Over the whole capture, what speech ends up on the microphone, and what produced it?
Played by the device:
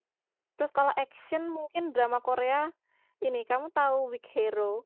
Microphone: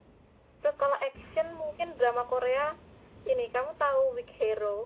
echo only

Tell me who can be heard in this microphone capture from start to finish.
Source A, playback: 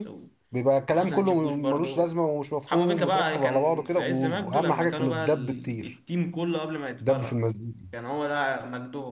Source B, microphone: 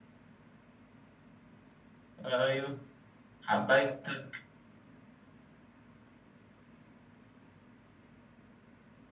user only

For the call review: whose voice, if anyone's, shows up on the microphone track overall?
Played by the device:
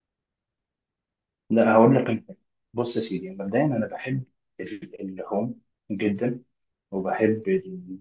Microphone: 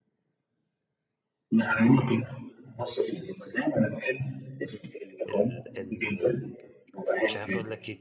both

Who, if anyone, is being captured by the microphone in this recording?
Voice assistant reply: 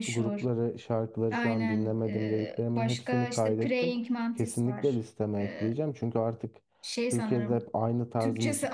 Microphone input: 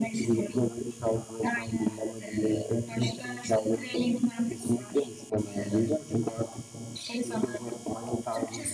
echo only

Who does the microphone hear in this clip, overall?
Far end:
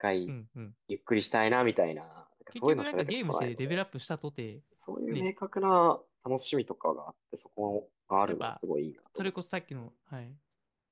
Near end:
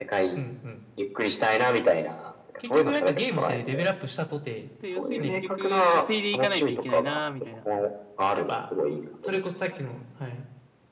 both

